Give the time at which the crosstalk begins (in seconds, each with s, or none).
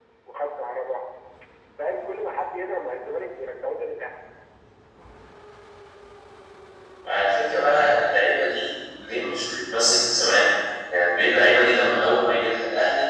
none